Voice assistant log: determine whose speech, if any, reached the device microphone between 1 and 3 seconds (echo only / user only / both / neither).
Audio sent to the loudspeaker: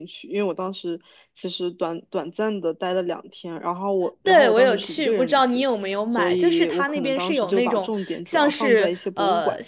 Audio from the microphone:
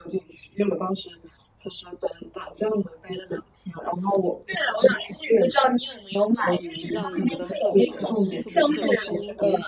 echo only